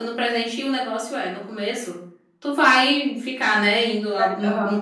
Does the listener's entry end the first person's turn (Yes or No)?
No